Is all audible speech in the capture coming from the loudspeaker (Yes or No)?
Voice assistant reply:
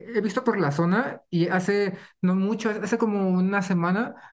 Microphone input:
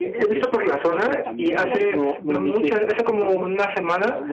No